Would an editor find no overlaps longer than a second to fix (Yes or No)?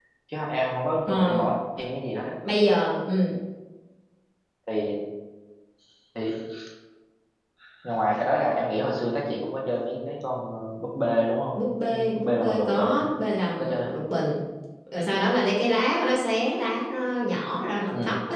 No